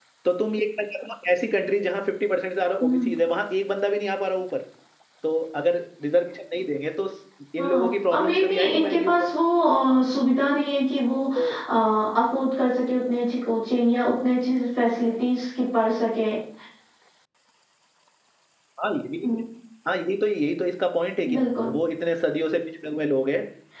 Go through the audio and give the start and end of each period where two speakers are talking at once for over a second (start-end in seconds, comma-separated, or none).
7.6-9.3